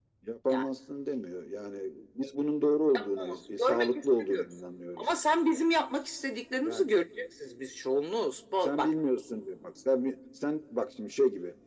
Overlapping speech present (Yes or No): Yes